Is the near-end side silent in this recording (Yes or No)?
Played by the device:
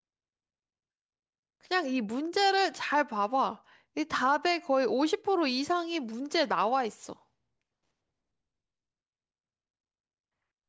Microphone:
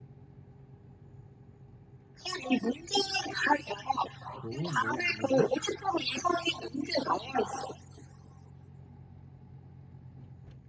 No